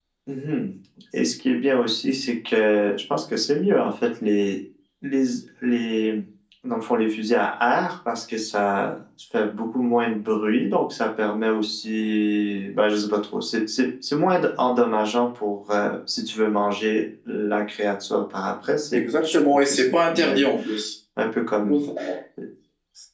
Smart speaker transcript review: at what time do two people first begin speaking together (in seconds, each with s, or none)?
18.9 s